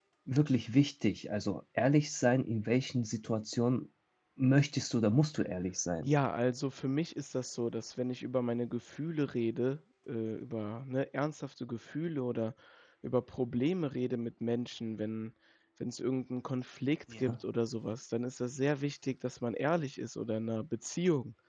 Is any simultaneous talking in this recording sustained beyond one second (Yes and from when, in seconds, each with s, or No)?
No